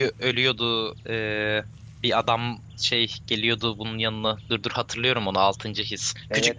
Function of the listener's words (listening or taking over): listening